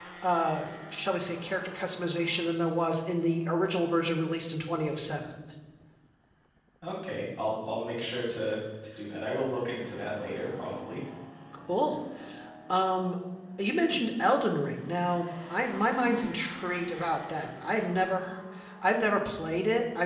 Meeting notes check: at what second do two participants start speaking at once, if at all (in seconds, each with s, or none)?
none